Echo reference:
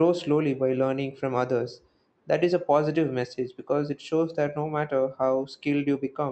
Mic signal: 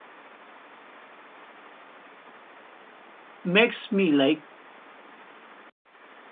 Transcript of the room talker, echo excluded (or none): makes me like